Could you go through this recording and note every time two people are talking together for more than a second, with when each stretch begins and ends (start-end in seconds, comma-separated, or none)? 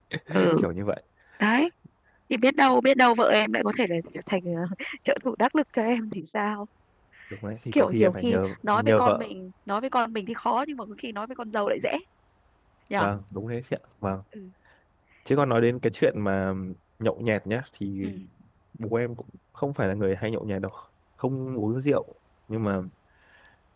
7.7-9.3